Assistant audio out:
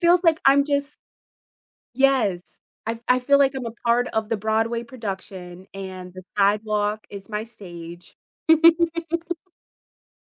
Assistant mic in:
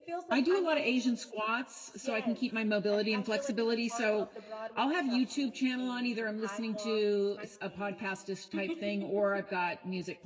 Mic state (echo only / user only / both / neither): both